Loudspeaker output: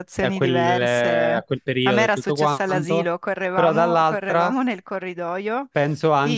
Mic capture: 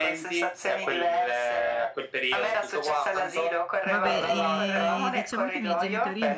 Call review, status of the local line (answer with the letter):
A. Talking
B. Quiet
A